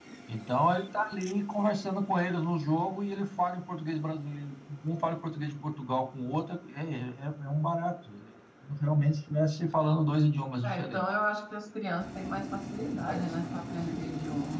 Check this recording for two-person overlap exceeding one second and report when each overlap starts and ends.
none

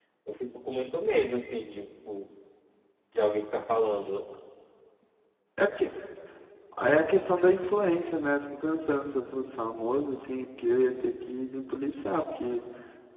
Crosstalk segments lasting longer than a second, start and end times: none

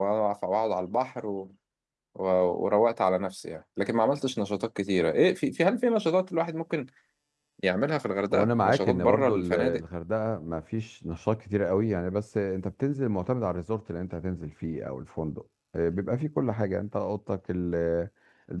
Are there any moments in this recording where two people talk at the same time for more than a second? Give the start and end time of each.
8.3-9.8

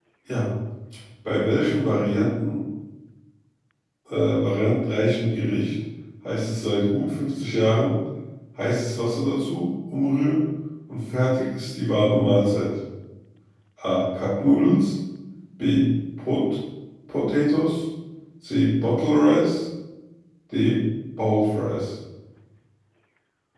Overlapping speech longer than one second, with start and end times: none

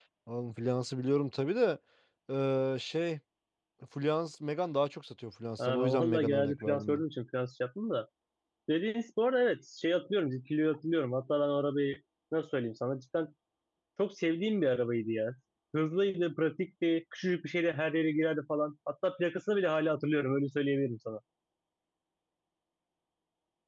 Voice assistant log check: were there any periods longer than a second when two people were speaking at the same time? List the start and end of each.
5.6-7.0

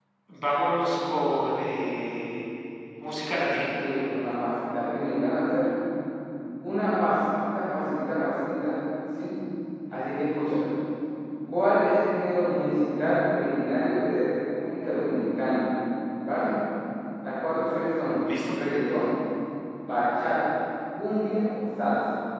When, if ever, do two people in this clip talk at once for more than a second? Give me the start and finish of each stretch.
none

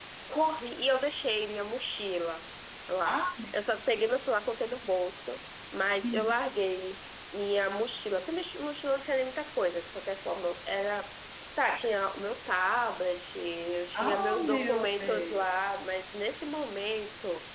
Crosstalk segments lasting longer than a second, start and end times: 13.9-15.4

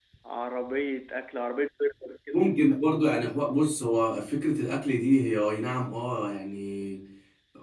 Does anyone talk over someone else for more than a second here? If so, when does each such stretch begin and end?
none

